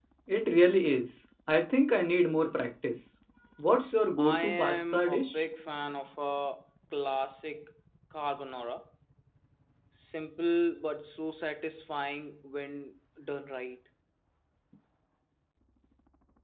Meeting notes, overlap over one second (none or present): present